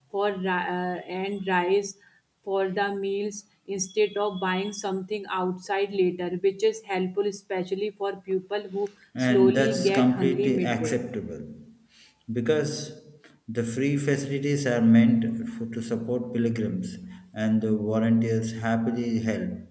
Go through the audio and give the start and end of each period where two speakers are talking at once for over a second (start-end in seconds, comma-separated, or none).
9.3-10.9